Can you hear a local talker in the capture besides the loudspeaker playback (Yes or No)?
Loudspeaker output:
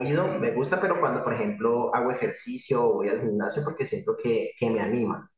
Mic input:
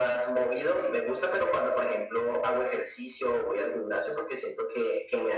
No